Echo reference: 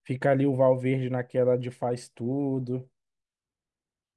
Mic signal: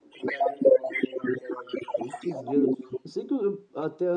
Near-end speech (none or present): present